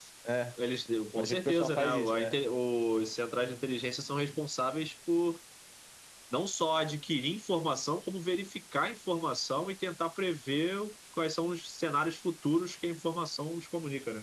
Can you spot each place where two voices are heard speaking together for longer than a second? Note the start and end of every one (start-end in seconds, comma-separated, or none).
1.2-2.4